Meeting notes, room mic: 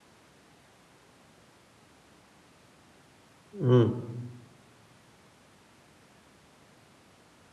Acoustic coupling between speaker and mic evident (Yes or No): No